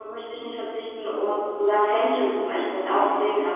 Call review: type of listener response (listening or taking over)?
listening